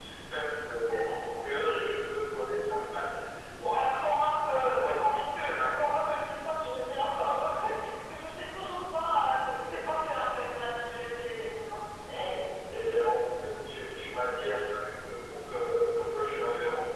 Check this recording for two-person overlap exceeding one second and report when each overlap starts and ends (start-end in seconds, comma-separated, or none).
4.5-5.9